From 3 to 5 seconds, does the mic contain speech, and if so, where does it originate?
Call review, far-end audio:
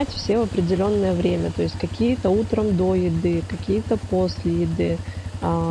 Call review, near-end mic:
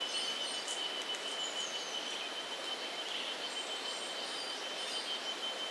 neither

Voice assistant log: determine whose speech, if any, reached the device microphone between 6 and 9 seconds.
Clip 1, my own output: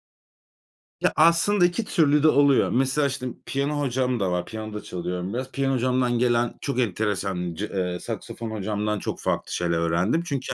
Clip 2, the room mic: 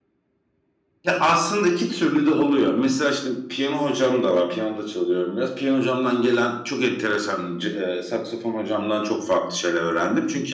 echo only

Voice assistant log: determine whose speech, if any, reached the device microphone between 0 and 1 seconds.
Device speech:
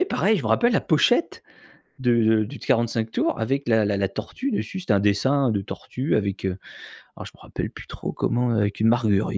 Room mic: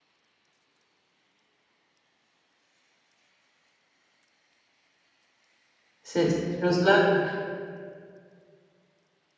neither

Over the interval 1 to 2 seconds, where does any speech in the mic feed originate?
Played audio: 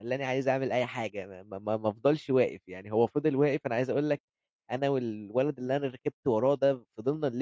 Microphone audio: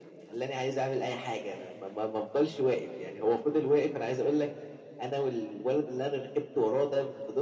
echo only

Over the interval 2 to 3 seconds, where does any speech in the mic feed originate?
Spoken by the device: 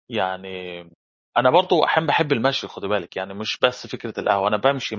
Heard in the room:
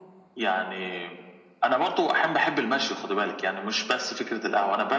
echo only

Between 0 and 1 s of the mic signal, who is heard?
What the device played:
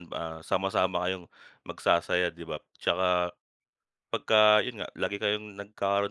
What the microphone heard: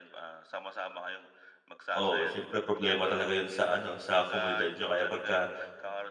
echo only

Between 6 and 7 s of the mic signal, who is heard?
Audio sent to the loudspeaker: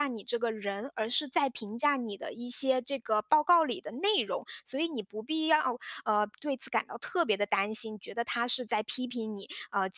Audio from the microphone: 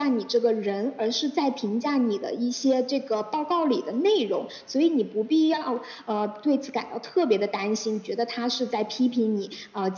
echo only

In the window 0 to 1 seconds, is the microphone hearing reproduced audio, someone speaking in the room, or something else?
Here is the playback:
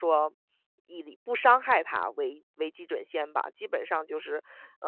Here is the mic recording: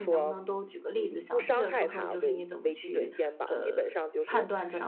both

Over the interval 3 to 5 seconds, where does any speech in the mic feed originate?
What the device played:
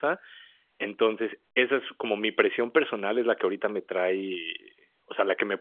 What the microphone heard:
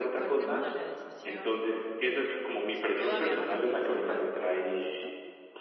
both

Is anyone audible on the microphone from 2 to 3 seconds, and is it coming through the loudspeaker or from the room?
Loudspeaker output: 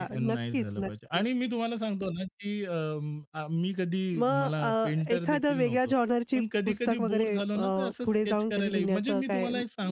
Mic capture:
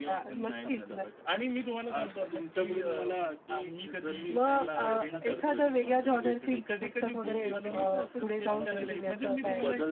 both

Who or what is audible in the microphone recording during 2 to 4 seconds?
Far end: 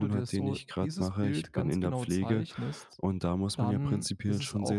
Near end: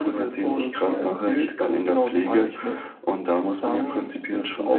echo only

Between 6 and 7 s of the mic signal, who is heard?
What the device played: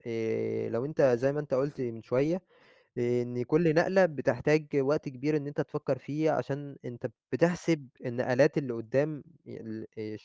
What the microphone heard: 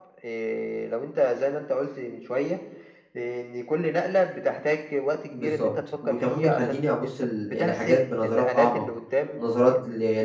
both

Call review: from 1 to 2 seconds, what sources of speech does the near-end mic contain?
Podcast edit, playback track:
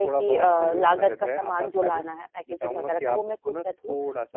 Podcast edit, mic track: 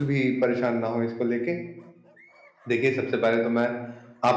user only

